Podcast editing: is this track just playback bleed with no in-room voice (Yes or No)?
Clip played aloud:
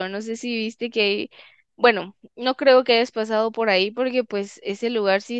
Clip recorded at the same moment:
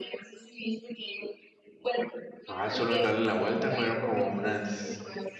No